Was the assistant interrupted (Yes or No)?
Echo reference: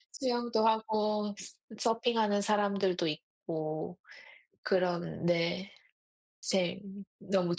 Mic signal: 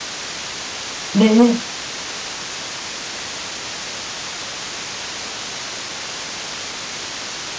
Yes